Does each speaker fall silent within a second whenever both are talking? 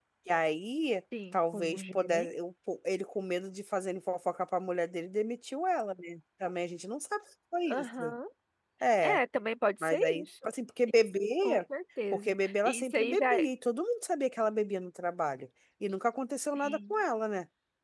No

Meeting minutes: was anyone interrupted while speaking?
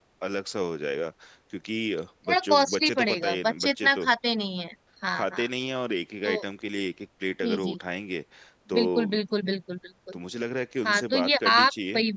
Yes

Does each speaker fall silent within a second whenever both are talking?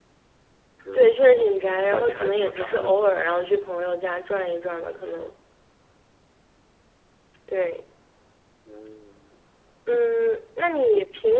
No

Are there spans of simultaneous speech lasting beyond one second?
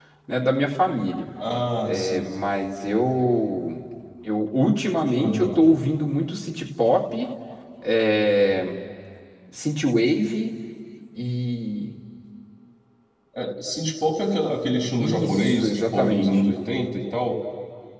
Yes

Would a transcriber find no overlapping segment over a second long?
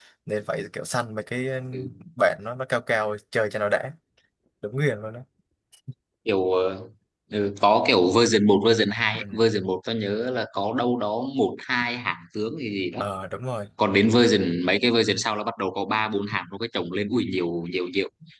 Yes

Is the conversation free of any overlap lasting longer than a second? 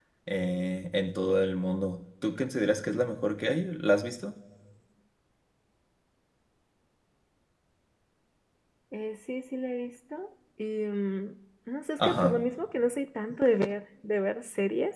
Yes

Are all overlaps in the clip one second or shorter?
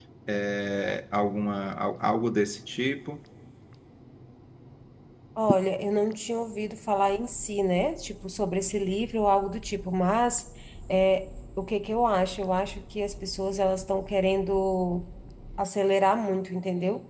Yes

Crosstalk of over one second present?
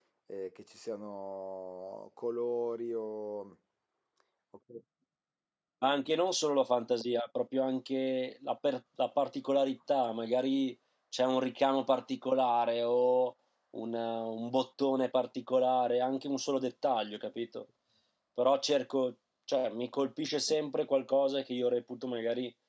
No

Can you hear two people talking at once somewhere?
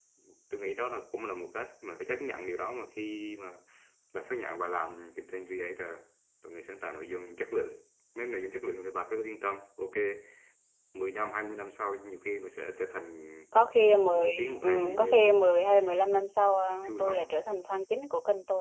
Yes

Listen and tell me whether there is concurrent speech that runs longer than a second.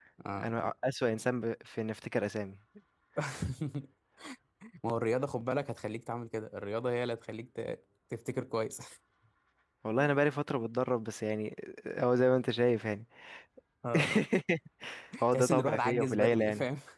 Yes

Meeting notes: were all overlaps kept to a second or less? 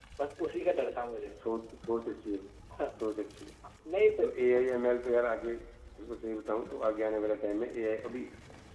Yes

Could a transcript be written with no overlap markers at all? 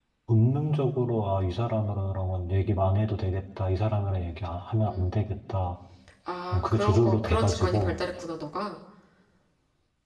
No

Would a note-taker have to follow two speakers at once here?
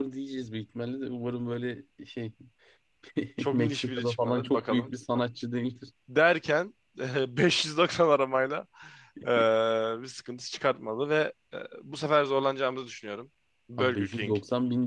Yes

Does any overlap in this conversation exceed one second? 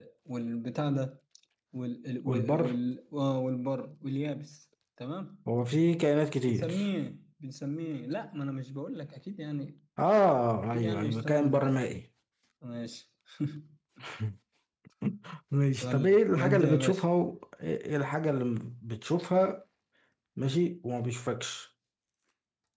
Yes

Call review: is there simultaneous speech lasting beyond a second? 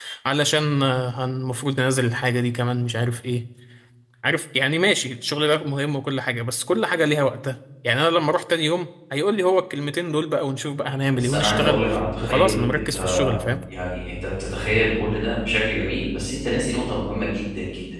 Yes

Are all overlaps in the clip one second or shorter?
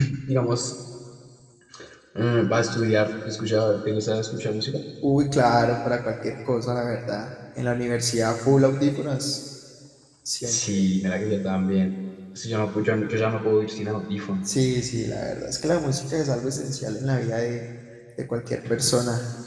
Yes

